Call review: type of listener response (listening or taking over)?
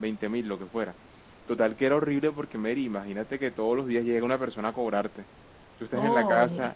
listening